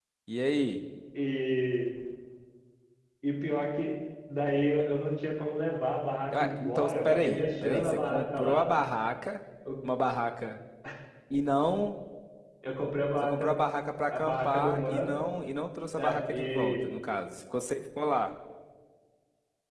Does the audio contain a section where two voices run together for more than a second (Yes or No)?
Yes